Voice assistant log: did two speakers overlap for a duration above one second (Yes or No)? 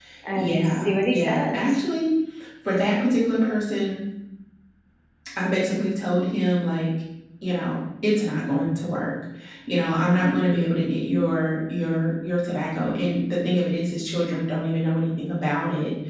Yes